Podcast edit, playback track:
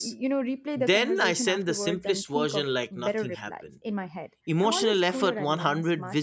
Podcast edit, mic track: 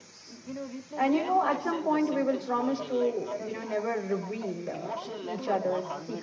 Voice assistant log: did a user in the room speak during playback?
Yes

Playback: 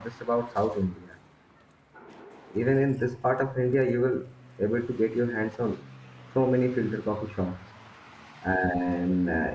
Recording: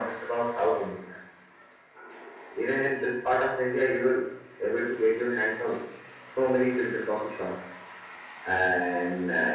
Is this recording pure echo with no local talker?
Yes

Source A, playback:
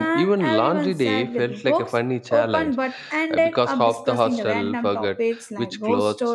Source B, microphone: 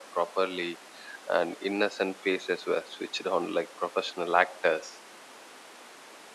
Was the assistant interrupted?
Yes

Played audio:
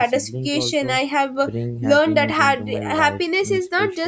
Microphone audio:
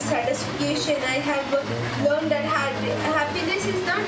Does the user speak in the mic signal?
No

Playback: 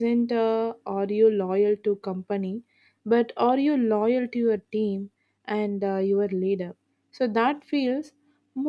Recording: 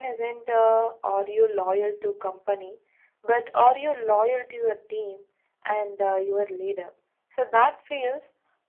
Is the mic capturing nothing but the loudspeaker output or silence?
Yes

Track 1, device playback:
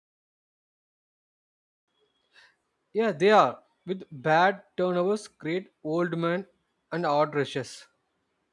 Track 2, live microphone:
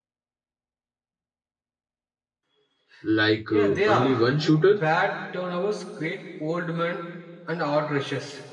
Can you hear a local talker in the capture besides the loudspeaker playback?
Yes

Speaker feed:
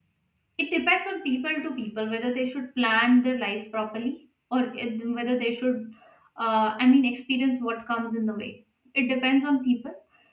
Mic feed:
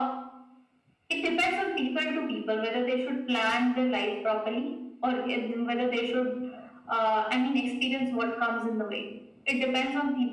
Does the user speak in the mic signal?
No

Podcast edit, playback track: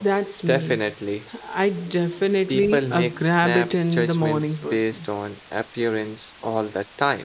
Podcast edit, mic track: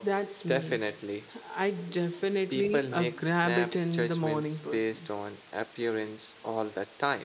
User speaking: No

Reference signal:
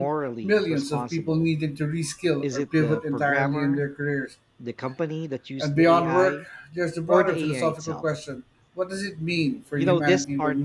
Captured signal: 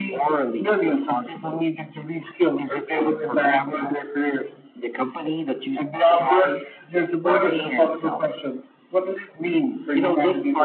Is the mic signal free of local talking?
Yes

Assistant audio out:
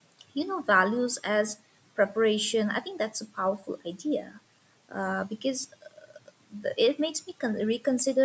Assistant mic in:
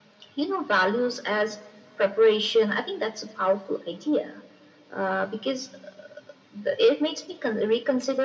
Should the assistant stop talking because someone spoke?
No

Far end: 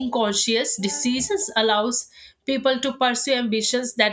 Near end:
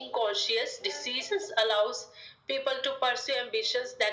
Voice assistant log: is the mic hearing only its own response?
Yes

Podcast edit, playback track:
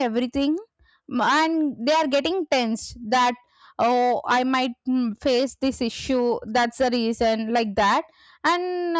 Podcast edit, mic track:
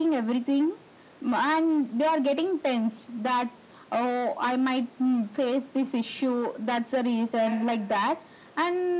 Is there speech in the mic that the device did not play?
Yes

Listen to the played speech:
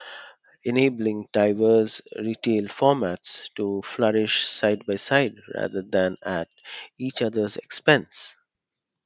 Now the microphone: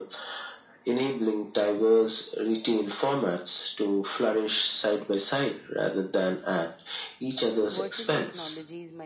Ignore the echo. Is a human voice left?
Yes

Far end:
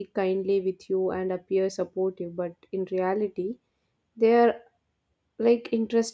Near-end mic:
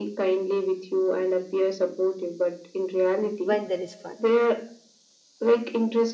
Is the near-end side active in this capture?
Yes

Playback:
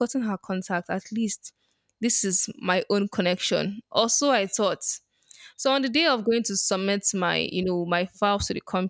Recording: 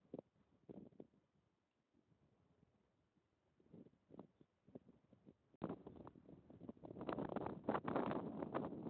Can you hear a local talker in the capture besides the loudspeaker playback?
No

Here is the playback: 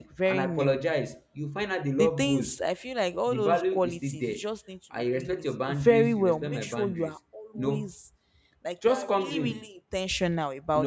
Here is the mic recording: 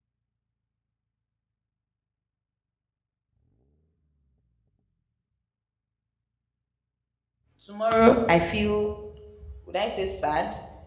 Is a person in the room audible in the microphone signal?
Yes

